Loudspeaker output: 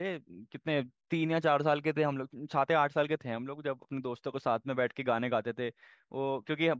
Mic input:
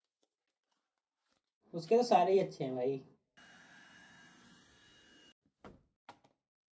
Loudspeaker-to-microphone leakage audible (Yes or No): No